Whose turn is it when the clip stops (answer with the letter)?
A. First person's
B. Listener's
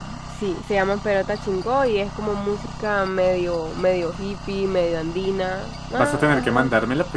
B